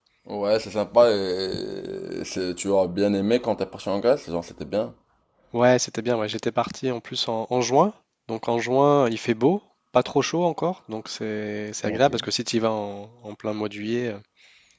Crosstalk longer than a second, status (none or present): none